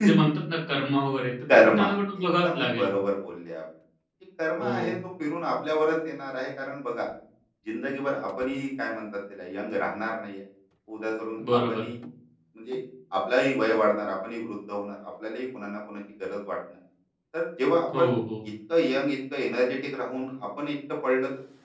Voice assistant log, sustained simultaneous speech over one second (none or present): present